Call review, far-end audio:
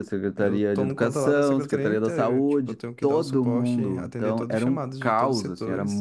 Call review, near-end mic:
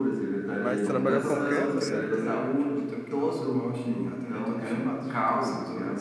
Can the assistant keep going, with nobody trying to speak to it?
No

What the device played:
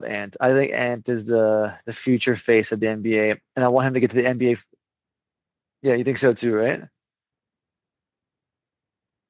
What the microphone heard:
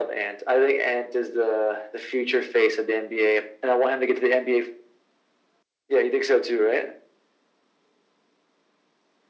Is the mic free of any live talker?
Yes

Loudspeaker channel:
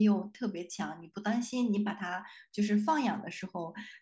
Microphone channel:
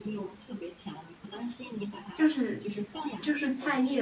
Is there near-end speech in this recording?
Yes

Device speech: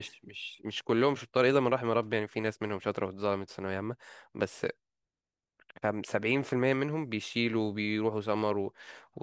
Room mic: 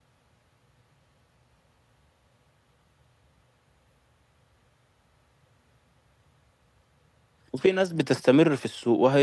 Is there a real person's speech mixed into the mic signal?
Yes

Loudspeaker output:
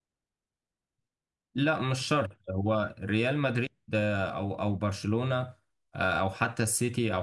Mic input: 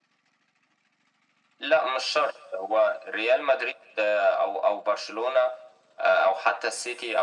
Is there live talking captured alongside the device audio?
No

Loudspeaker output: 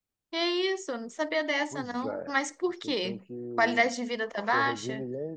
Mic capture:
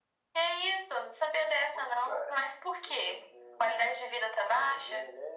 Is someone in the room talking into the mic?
No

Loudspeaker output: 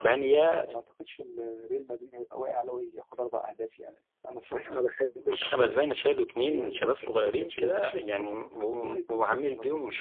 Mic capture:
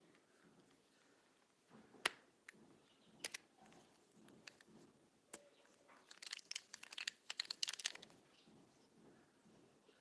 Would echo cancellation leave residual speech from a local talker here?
No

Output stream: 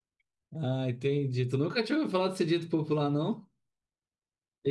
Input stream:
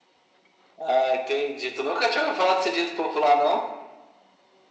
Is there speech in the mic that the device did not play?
No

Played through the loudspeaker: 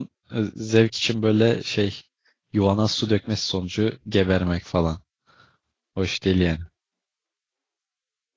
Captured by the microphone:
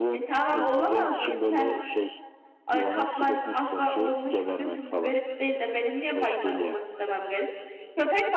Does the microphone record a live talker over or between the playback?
Yes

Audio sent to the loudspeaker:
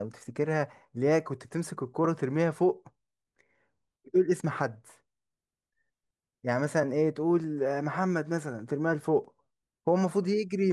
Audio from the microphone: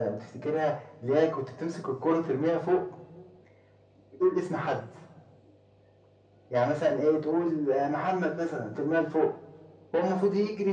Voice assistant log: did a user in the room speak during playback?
No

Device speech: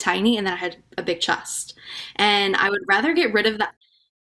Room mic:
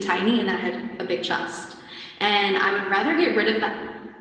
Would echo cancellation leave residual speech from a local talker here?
No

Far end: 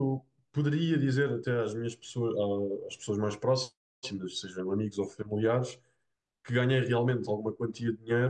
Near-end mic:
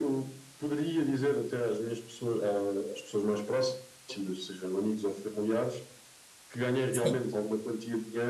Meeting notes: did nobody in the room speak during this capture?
No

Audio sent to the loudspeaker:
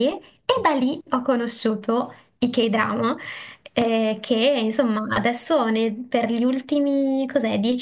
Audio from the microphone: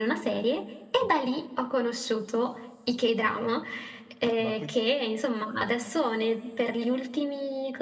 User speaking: Yes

